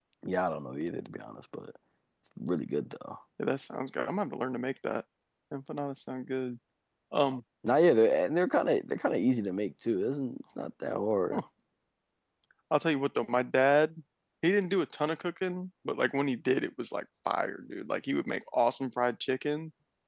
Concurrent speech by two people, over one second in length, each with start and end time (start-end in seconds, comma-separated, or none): none